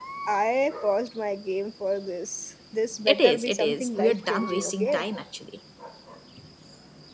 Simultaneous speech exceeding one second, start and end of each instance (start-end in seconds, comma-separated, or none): 3.1-5.0